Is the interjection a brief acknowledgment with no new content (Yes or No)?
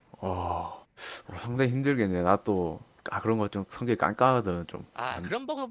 No